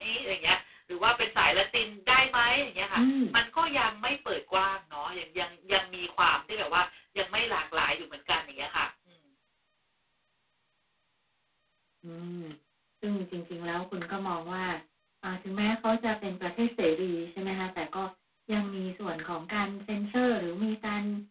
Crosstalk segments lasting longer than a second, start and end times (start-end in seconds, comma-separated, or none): none